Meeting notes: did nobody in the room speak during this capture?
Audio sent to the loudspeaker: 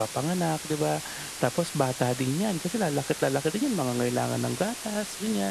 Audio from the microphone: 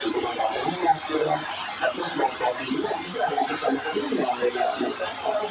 Yes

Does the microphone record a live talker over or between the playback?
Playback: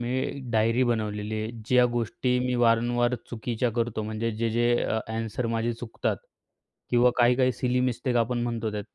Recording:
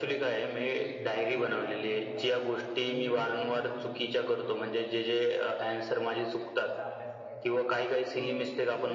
Yes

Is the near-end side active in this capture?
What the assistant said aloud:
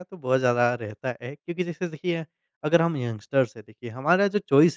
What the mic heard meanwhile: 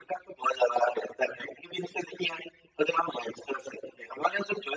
No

